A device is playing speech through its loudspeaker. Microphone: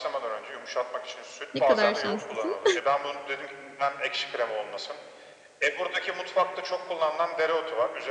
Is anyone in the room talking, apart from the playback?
Yes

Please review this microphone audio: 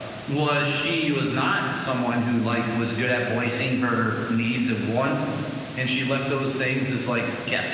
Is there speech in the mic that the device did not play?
No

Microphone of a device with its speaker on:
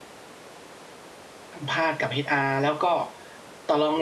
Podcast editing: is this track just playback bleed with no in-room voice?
No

